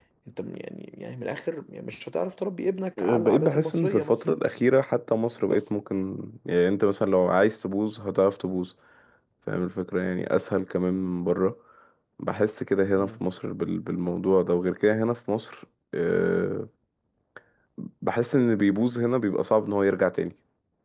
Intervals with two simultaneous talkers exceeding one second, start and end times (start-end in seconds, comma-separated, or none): 3.0-4.2